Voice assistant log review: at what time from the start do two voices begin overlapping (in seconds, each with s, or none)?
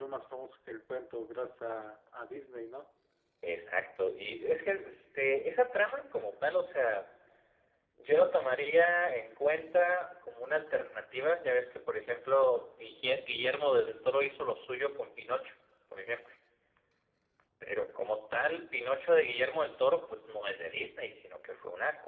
none